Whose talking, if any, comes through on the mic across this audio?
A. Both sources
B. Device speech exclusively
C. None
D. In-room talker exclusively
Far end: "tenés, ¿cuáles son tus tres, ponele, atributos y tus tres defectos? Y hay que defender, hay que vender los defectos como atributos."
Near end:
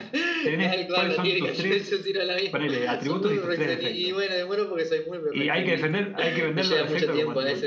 A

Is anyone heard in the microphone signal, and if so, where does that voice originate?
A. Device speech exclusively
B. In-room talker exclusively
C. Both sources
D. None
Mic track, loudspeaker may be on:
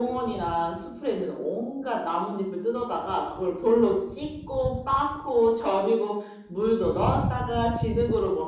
A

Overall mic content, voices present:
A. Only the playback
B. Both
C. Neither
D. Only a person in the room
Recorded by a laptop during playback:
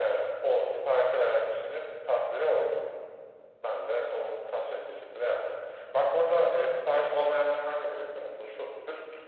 A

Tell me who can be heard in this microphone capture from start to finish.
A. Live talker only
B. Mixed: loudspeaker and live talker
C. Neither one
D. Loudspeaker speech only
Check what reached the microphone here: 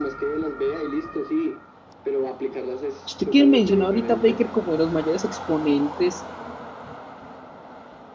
B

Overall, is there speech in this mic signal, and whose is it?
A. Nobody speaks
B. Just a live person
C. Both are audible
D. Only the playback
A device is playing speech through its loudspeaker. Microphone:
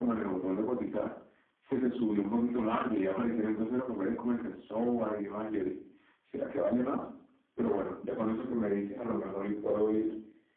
D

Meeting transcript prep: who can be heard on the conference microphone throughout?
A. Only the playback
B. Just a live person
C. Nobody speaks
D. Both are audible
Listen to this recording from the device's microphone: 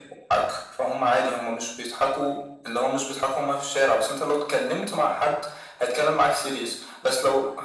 A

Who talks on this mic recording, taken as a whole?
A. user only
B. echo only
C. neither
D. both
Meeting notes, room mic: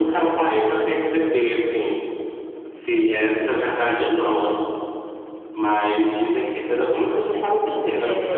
D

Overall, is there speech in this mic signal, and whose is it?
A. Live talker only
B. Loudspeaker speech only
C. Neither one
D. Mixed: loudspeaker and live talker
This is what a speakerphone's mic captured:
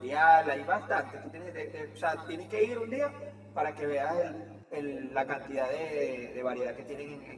B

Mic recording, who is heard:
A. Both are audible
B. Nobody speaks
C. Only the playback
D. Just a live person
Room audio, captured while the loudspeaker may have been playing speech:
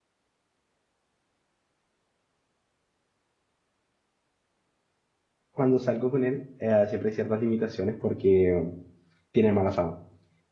D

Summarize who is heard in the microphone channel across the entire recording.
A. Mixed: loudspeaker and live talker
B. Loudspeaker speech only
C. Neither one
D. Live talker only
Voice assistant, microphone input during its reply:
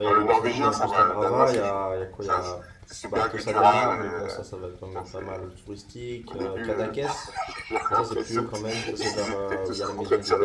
A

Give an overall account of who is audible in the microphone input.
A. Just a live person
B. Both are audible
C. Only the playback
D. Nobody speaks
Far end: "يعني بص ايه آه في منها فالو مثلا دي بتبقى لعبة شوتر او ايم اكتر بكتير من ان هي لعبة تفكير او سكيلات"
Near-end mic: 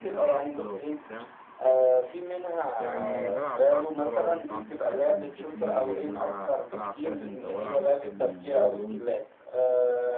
B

